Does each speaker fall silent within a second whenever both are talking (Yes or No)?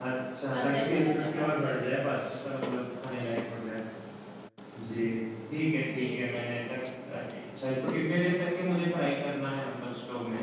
No